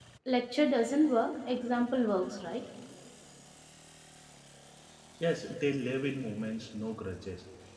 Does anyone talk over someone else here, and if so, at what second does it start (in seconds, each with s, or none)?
none